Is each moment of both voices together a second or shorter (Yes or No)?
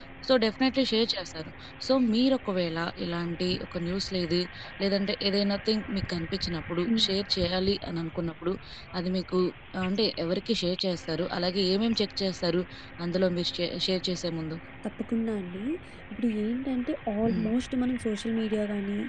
Yes